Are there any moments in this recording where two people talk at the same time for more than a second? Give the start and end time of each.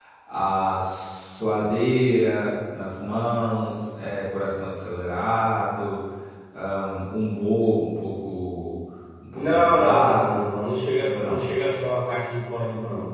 9.3-10.6

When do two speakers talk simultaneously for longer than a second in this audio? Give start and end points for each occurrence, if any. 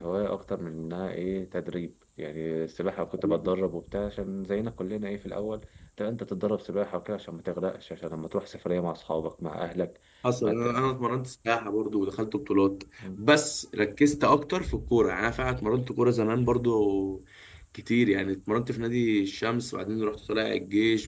none

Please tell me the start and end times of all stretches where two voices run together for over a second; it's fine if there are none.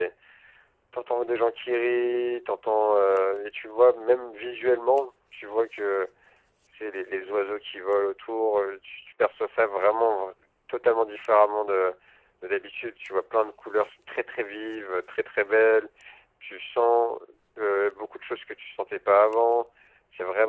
none

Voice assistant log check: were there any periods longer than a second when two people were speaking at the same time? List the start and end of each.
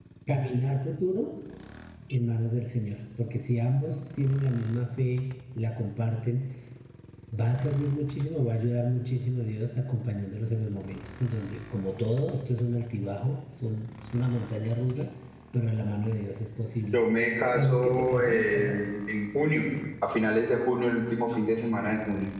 17.5-18.8

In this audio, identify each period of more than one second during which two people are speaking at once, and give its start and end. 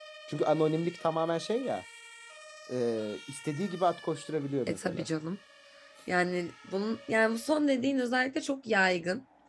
none

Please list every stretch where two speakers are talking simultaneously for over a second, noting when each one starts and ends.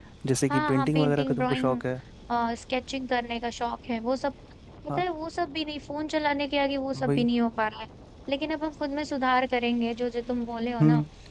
0.5-1.8

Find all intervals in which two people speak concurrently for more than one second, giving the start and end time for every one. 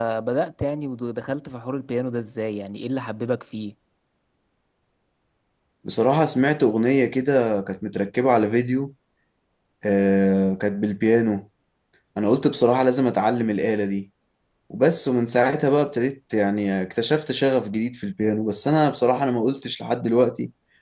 none

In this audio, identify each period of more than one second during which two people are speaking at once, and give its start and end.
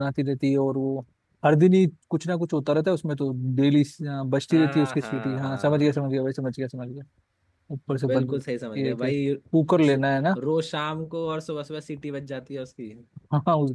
4.5-5.9

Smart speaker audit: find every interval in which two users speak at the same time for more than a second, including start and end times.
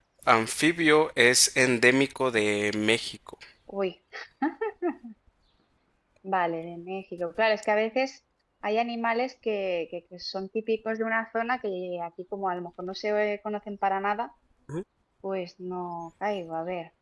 none

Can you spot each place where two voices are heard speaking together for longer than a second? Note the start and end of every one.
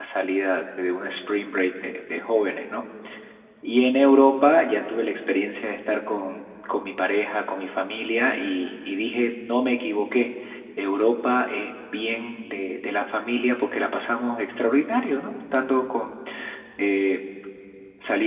none

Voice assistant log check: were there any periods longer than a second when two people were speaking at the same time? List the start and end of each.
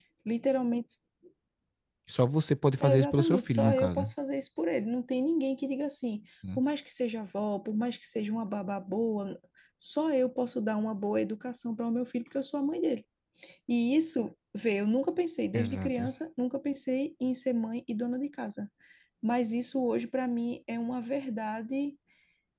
2.8-4.0

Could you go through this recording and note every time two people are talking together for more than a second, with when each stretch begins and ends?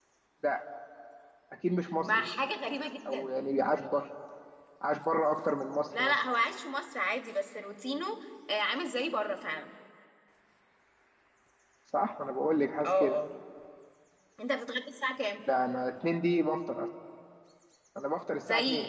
none

